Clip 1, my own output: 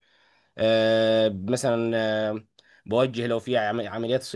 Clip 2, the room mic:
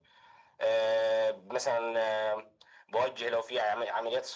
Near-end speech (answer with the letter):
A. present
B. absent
B